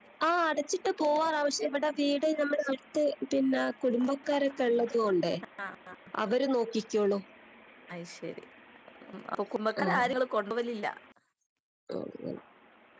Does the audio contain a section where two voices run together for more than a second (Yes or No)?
No